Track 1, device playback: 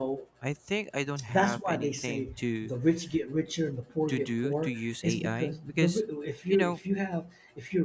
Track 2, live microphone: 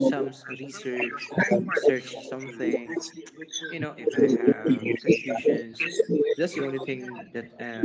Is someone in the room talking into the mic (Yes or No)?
Yes